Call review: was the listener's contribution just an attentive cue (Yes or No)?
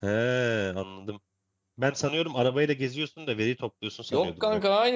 No